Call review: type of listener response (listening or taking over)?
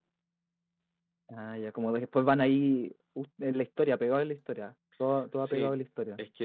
taking over